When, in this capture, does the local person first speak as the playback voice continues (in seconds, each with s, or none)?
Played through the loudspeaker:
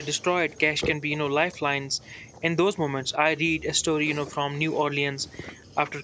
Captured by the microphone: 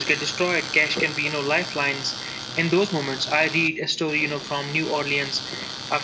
none